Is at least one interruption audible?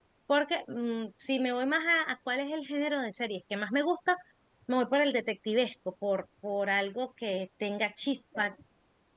No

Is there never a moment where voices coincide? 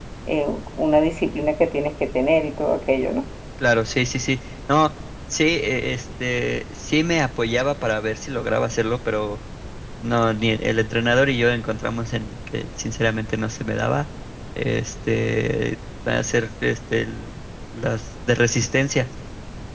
Yes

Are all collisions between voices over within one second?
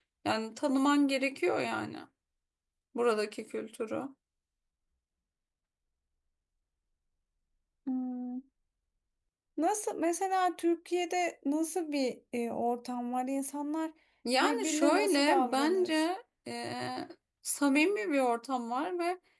No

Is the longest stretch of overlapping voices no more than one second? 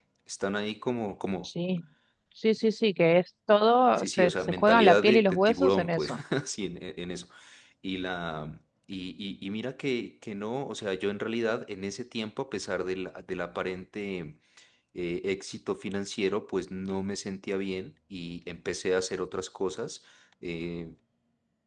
No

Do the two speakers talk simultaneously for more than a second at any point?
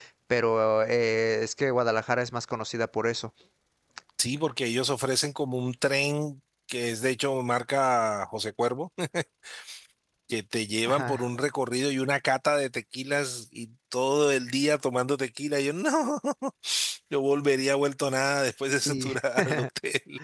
No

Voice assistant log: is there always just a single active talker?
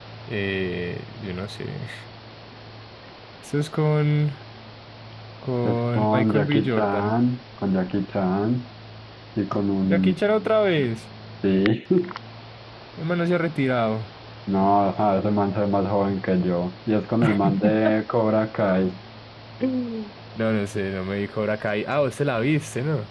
No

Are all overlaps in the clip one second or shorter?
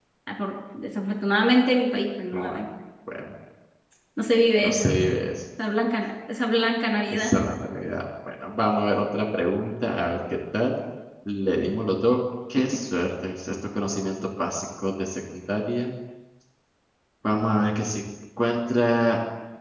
Yes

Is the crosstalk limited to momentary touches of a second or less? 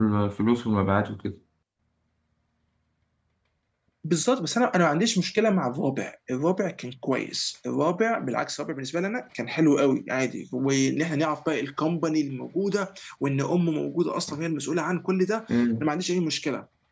Yes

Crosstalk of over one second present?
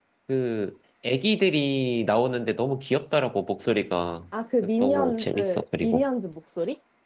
Yes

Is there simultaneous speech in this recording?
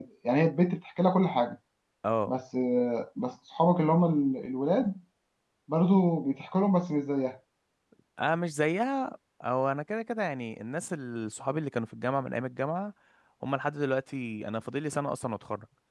No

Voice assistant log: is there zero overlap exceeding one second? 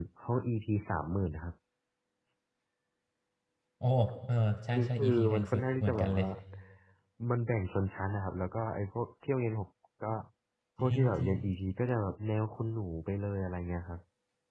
No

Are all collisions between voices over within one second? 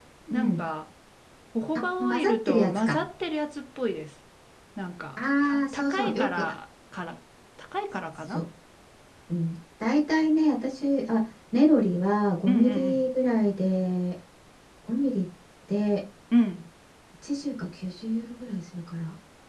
No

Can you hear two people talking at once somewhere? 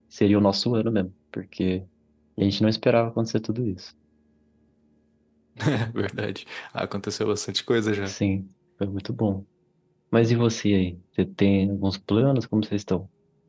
No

